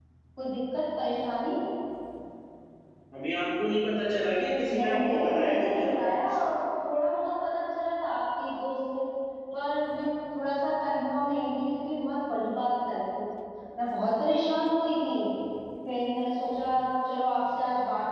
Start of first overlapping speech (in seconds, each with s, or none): 4.7 s